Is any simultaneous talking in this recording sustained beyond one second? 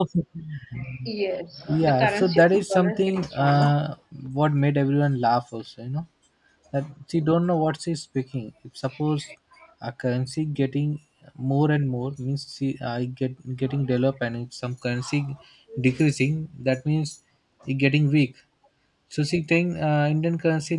Yes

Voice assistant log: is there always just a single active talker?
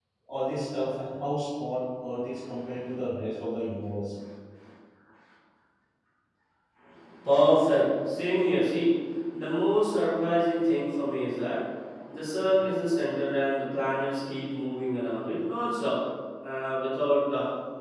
Yes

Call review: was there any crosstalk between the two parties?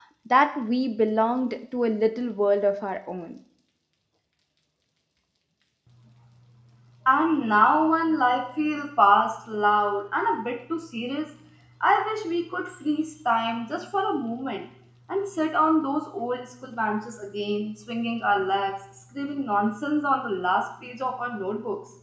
No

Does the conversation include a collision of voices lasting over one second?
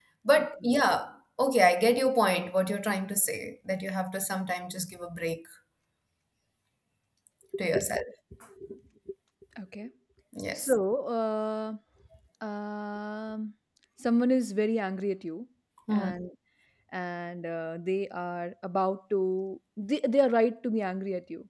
No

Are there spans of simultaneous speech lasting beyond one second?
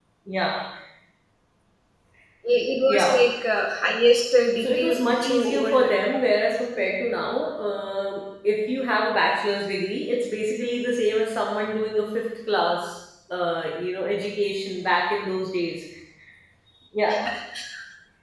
Yes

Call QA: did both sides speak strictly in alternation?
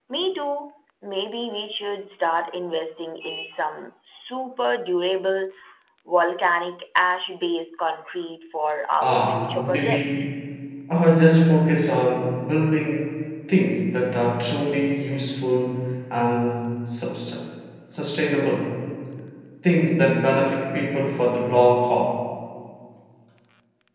No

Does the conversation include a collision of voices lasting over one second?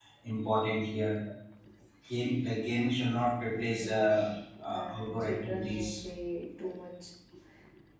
Yes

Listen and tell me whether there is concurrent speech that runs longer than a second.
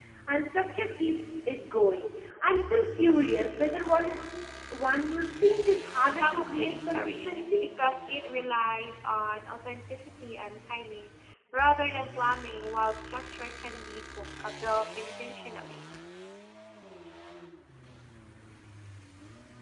Yes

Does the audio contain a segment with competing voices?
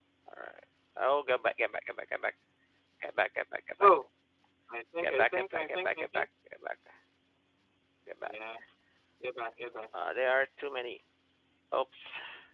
Yes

